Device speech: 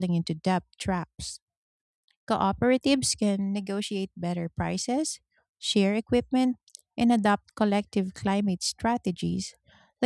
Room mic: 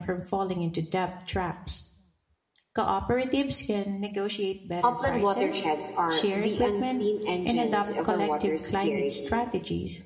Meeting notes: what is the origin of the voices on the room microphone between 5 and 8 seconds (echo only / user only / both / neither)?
both